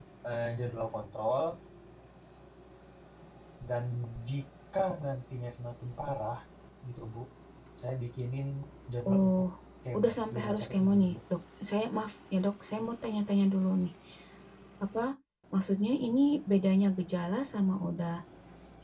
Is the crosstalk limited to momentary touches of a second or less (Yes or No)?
No